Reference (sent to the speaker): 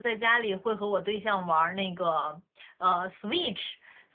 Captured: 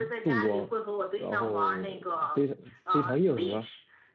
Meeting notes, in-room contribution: present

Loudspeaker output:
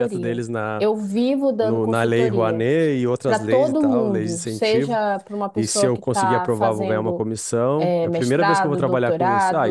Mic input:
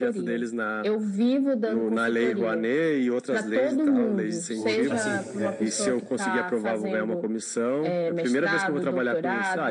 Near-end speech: present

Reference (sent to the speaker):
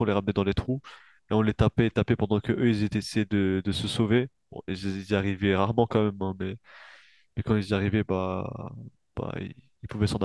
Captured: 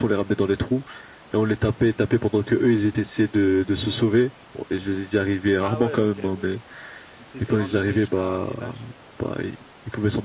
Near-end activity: present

